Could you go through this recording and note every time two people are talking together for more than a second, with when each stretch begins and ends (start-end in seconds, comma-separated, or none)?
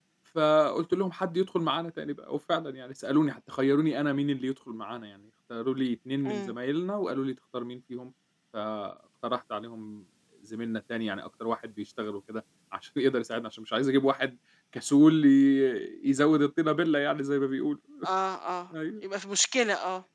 none